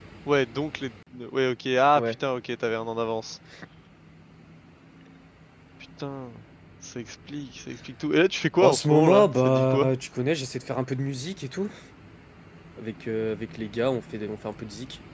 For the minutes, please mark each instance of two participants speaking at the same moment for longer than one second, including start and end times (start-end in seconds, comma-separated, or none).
8.6-9.9